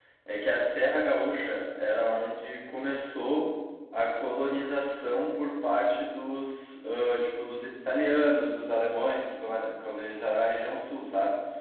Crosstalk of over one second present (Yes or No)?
No